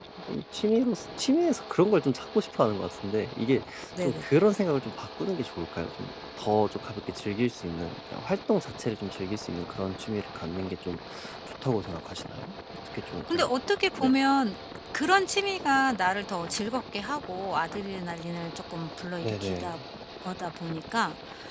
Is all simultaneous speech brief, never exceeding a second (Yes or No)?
Yes